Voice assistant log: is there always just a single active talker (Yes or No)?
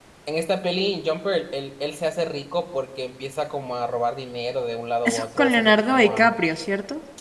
No